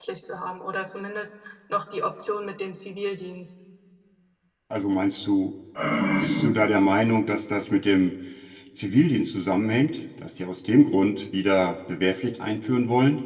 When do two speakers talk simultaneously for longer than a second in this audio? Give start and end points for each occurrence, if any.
none

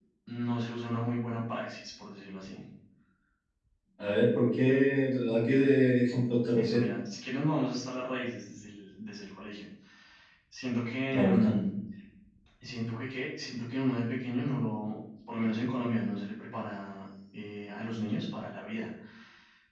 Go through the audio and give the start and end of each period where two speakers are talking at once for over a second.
none

